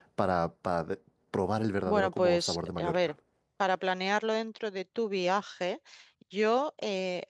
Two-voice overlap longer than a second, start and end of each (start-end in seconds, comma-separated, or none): 1.9-3.1